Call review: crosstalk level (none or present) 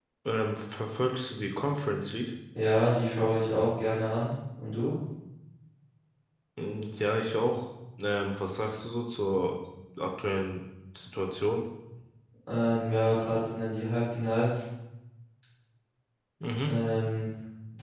none